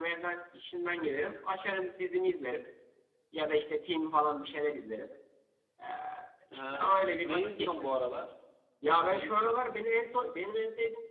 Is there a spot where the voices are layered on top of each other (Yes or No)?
Yes